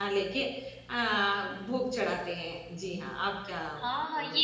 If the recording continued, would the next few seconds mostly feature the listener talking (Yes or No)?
Yes